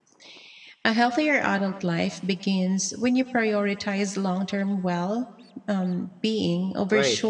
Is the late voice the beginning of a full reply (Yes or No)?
Yes